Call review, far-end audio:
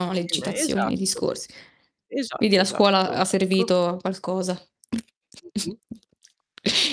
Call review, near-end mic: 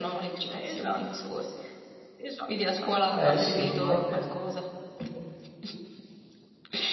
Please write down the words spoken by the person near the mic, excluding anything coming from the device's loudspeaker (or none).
Eh sì, no è ve Mh-mh.